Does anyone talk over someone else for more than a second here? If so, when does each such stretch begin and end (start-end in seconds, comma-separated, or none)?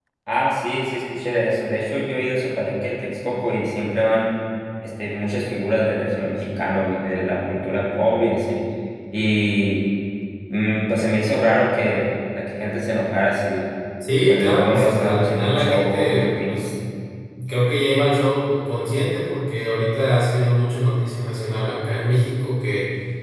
14.3-16.6